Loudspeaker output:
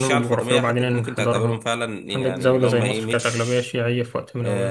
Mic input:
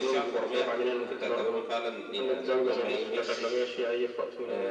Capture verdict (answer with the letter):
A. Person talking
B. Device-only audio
B